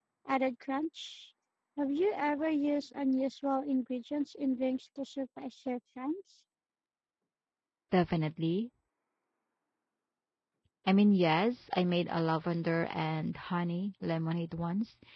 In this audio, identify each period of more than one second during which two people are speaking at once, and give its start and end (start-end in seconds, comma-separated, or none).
none